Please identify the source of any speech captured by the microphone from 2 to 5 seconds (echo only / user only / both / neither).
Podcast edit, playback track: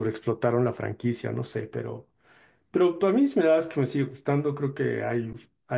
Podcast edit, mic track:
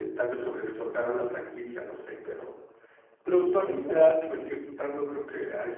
echo only